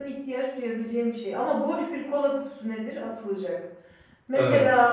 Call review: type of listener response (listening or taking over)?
listening